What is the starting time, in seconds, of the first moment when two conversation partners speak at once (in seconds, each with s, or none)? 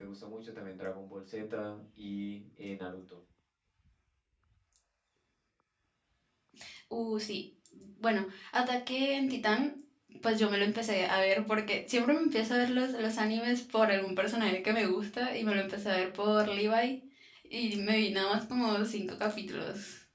none